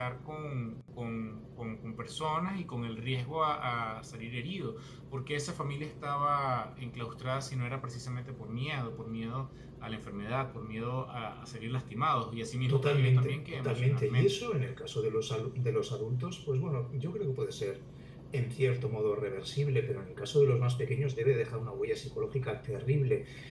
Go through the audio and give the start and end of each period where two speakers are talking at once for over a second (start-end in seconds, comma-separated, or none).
12.7-14.5